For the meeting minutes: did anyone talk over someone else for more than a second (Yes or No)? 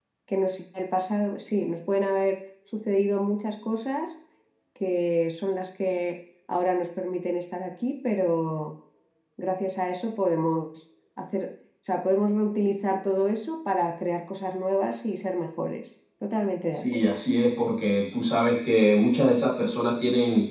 No